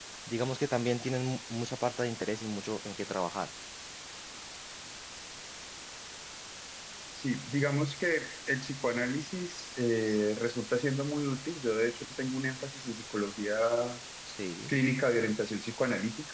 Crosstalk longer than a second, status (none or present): none